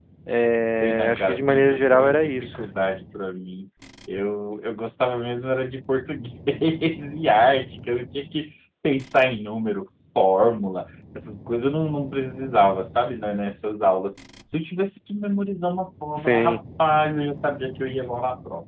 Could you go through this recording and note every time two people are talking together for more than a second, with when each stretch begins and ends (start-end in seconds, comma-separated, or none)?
0.7-2.6